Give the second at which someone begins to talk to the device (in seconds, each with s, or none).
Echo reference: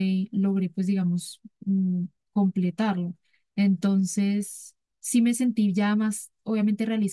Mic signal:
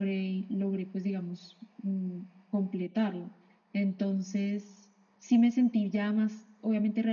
none